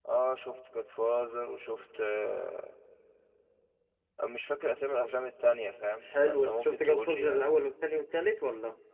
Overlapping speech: Yes, from 6.0 s

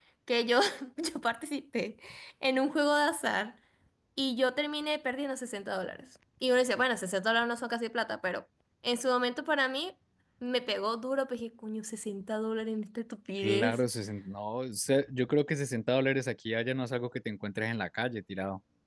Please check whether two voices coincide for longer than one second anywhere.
No

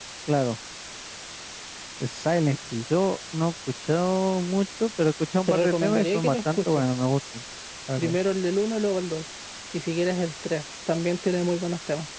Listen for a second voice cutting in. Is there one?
Yes, from 5.5 s

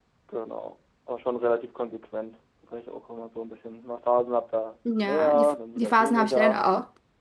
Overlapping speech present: Yes, from 4.8 s

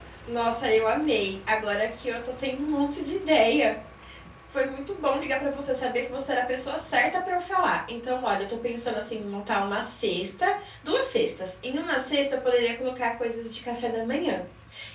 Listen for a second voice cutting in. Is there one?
No

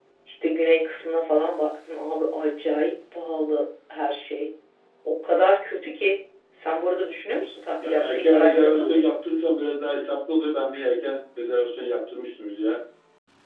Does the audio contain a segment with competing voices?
Yes, from 7.8 s

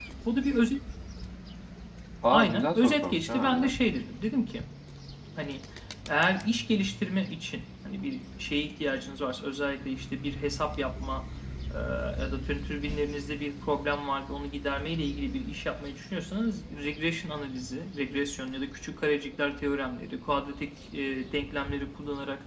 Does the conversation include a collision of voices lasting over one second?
Yes, from 2.3 s

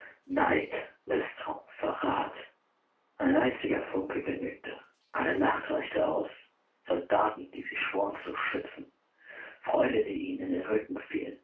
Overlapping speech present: No

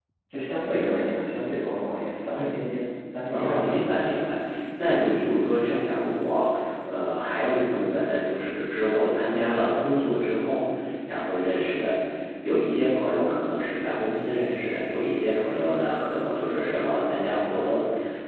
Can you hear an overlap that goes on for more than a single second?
No

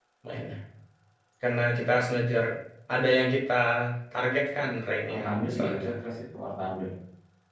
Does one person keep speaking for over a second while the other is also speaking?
Yes, from 4.6 s

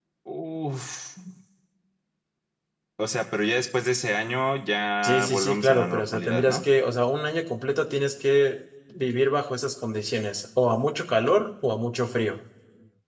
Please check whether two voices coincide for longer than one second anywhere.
Yes, from 5.0 s

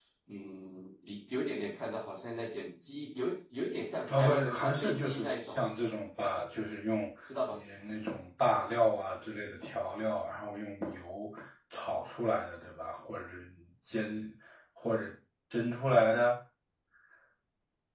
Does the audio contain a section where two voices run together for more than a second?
Yes, from 4.1 s

